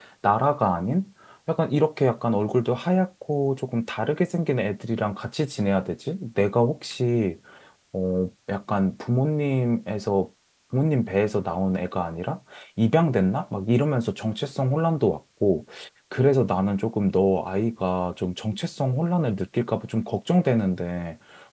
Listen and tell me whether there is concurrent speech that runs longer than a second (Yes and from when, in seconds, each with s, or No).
No